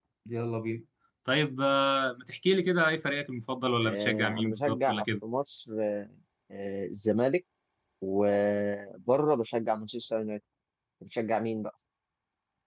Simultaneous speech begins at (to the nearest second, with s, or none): 4 s